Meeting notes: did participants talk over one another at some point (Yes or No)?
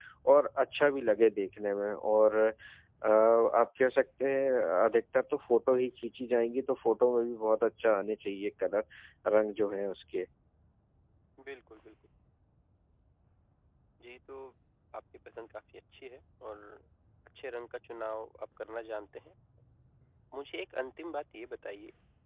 No